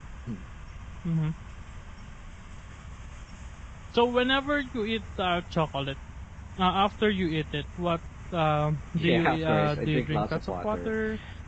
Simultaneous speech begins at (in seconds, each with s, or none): 9.0 s